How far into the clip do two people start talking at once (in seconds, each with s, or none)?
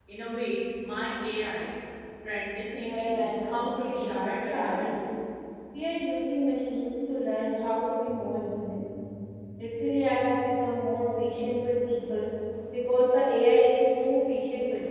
2.8 s